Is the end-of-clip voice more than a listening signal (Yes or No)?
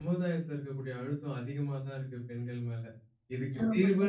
No